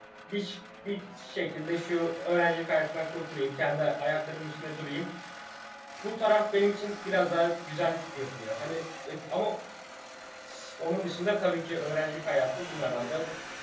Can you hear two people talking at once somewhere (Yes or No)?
No